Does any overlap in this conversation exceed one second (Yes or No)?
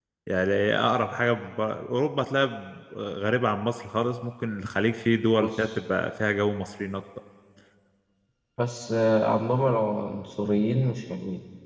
No